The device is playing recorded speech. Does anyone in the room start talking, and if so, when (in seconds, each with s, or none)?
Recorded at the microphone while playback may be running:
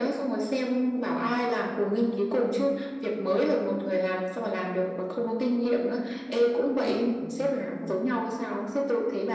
none